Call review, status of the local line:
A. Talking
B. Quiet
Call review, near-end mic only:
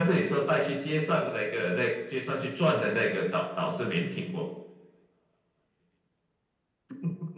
B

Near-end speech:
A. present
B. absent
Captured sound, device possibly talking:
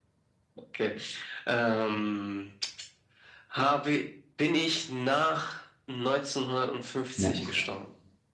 A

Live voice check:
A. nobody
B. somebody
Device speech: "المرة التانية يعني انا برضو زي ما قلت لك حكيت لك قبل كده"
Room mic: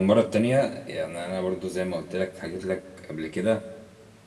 A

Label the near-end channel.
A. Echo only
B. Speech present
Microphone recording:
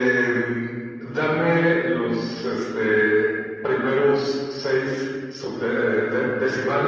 A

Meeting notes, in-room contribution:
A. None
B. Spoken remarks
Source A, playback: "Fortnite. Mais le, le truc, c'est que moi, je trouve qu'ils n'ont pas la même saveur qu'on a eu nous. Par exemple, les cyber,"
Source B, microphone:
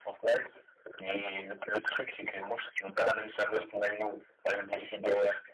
A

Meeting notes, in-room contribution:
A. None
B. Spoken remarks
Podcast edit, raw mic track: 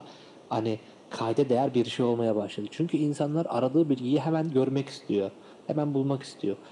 A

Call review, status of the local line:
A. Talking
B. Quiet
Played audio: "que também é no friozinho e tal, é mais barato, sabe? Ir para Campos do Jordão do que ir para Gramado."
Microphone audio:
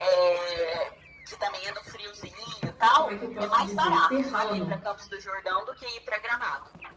A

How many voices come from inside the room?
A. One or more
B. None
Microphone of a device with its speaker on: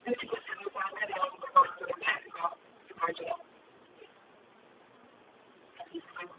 B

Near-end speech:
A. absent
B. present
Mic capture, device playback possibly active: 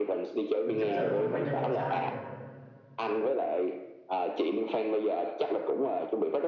B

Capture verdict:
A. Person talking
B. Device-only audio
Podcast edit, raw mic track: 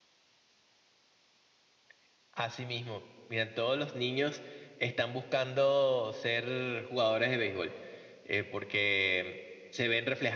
B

